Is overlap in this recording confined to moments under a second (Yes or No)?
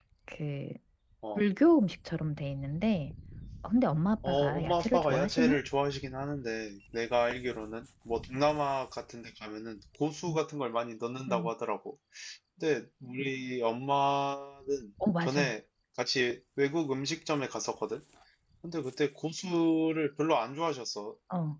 No